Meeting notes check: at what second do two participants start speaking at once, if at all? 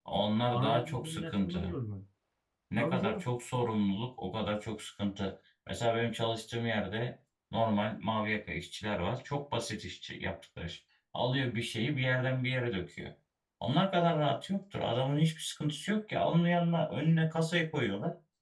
0.5 s

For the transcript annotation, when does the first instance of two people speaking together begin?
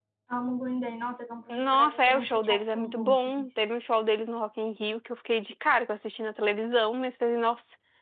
1.5 s

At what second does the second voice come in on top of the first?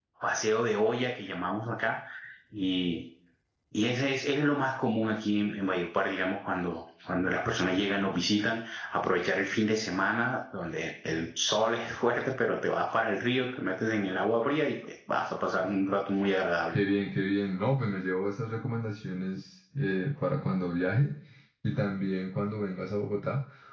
none

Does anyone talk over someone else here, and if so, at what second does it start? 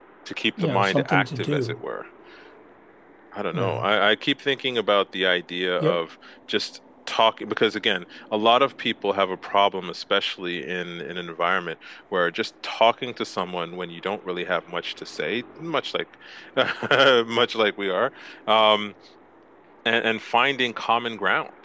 0.6 s

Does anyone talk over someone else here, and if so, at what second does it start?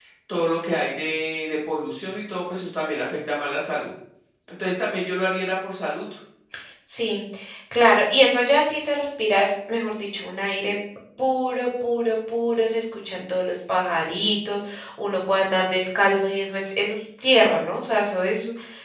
none

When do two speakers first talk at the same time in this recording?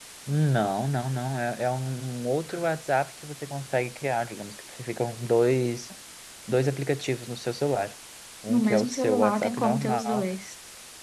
8.5 s

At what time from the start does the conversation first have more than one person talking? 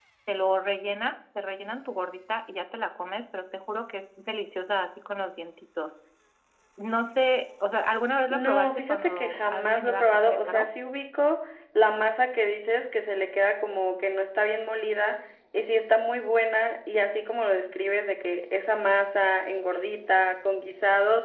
8.3 s

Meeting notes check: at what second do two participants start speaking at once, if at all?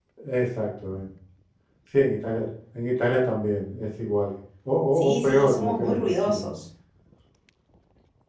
5.0 s

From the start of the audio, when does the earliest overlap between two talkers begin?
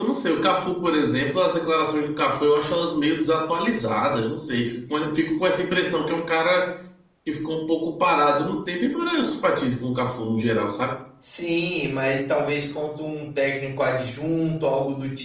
none

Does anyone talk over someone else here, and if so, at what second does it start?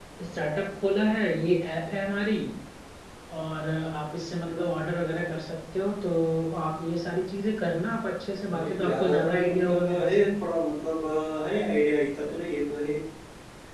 8.5 s

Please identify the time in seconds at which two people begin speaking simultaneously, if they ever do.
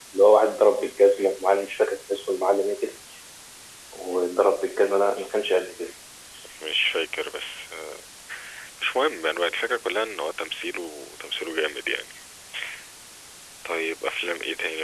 none

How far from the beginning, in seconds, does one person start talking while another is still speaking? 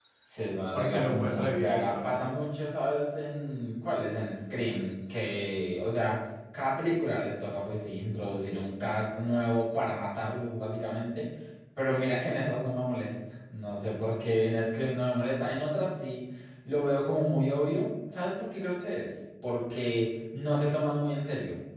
0.7 s

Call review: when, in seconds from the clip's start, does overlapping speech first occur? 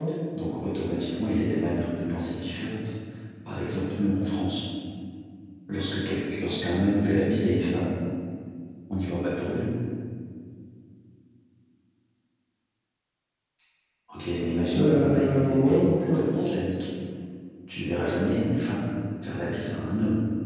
14.7 s

